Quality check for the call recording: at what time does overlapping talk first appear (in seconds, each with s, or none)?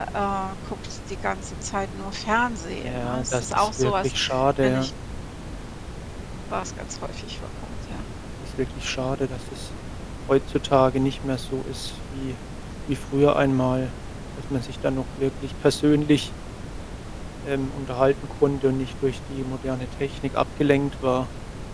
2.8 s